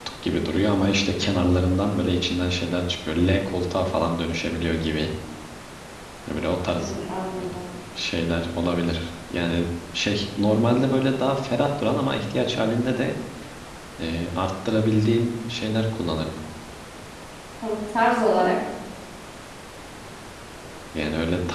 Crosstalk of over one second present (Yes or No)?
No